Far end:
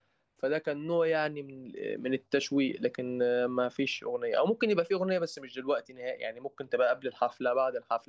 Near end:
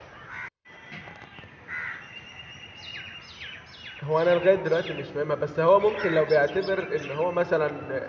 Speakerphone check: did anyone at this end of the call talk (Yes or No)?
Yes